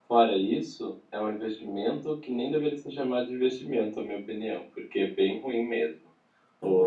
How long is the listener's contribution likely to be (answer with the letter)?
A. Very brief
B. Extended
A